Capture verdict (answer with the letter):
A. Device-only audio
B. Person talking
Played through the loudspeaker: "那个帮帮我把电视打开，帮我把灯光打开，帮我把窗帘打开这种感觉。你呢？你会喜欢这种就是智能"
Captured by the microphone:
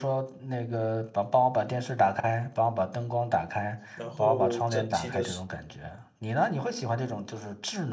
B